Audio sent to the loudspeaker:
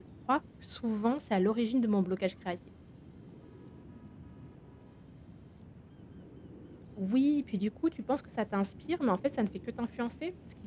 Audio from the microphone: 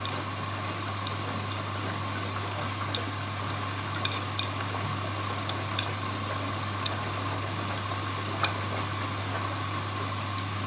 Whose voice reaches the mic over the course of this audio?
neither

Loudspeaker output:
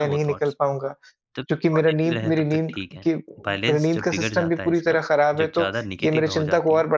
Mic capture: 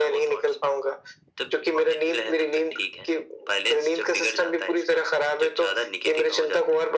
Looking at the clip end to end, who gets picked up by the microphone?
echo only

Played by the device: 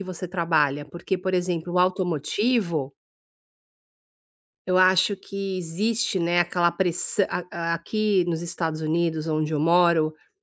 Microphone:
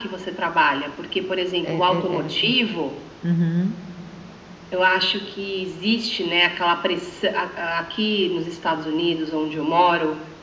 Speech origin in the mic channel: both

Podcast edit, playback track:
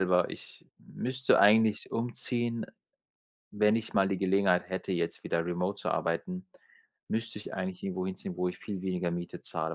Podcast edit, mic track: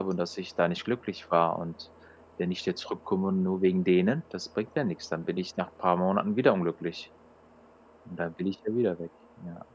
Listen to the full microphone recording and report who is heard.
user only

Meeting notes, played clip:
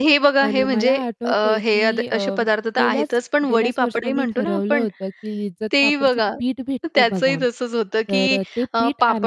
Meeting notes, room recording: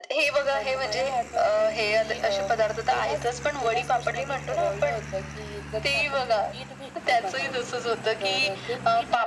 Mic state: echo only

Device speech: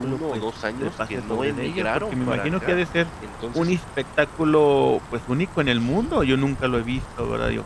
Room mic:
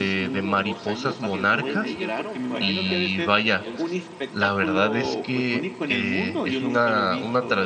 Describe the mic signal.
both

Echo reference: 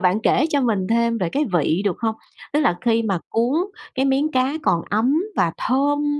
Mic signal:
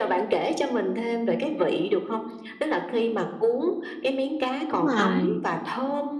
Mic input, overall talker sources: both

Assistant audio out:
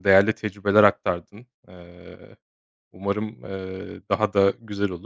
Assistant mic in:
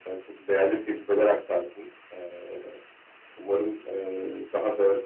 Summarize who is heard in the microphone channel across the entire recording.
echo only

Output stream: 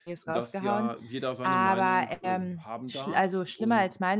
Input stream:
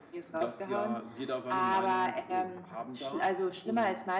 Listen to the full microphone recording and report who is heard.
echo only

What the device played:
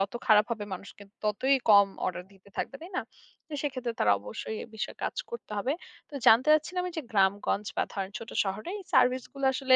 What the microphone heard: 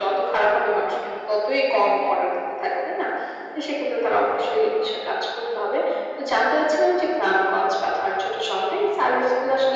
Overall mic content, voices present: echo only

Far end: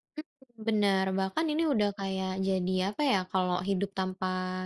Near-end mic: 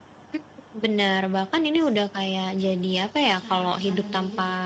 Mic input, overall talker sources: both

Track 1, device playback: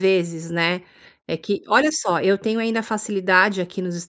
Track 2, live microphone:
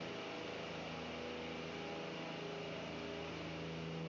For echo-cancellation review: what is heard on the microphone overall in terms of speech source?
neither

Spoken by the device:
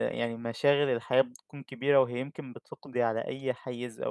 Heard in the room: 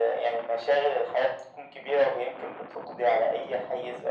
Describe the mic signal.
echo only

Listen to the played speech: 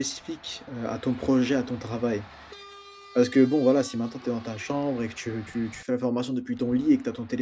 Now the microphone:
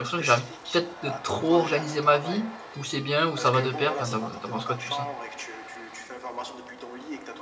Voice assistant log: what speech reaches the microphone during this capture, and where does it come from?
both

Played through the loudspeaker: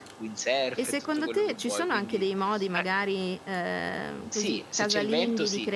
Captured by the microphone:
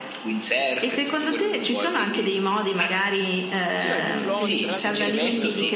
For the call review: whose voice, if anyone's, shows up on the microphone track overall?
both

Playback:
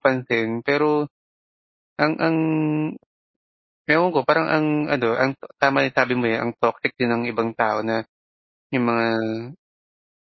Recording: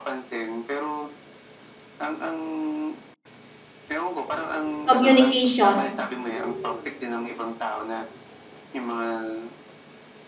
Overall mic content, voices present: both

